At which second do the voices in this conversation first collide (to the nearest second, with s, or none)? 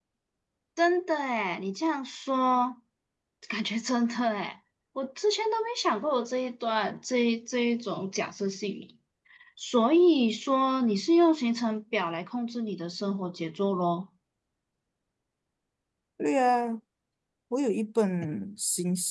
none